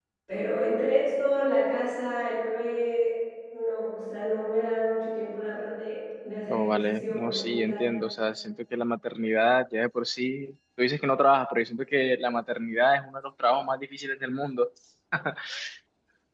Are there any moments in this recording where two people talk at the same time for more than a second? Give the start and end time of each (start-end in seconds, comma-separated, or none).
6.5-7.8